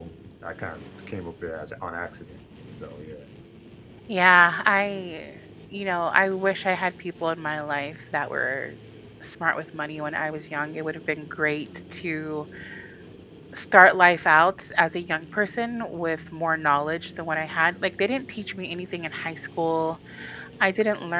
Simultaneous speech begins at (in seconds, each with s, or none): none